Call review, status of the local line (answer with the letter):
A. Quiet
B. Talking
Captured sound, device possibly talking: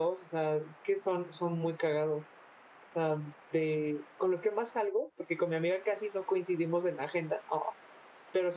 B